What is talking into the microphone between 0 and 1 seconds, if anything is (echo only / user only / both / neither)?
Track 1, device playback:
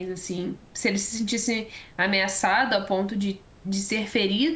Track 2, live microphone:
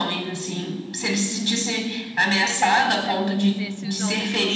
echo only